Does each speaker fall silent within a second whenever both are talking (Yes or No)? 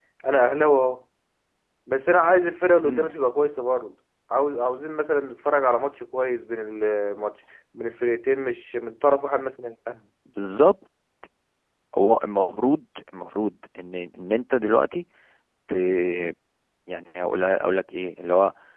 Yes